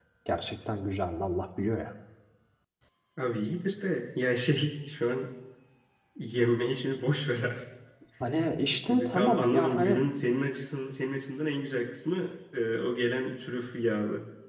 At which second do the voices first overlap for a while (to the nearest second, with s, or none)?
9 s